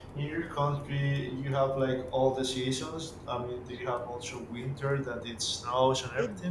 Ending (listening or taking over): taking over